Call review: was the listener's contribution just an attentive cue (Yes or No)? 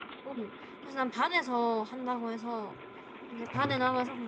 Yes